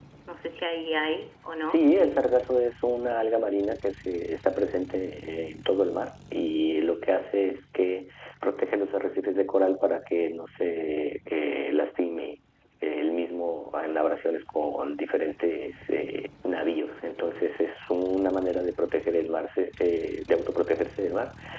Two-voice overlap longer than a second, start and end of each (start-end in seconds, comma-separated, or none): none